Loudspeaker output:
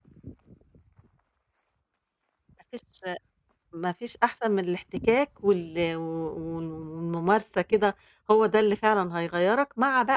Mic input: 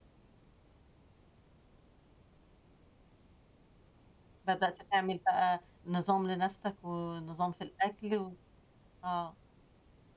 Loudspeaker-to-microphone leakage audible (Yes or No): No